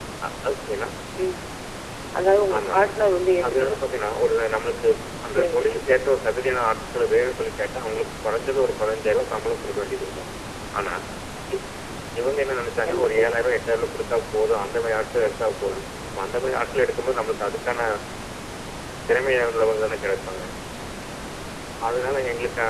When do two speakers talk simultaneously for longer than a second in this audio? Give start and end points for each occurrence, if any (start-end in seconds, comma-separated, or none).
none